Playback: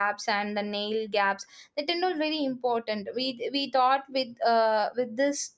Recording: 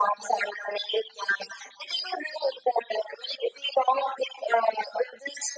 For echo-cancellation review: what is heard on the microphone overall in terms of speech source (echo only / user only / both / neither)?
echo only